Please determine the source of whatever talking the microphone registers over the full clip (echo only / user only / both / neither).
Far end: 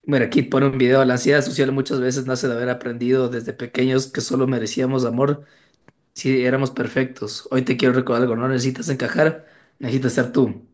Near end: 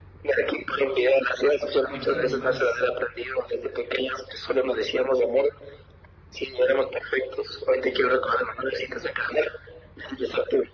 both